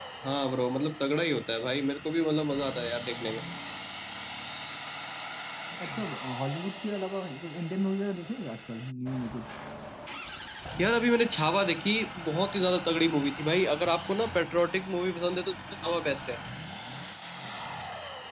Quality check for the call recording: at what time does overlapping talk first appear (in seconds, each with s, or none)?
none